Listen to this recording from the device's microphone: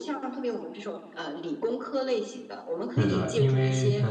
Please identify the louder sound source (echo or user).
user